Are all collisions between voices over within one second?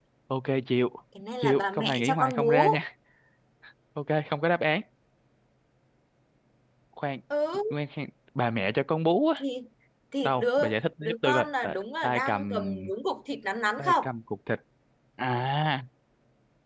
No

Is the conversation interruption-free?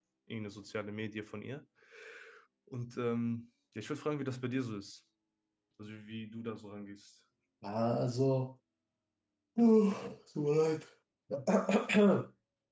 Yes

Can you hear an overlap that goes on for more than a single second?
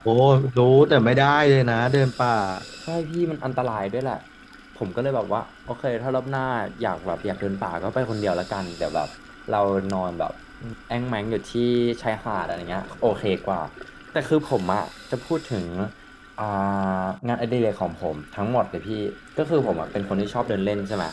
No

